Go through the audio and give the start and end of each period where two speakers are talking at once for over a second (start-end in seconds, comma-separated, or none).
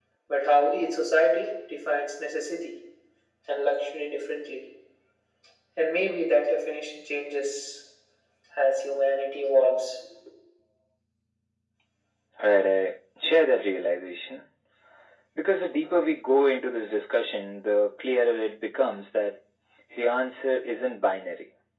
none